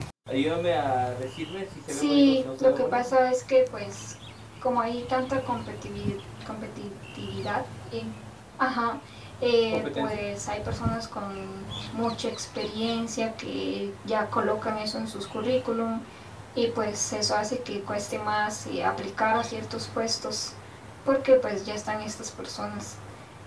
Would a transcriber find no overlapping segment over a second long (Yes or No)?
No